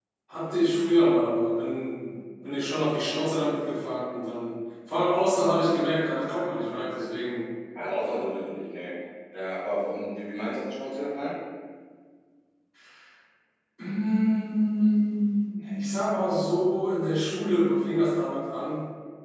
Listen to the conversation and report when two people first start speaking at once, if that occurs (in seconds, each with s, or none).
none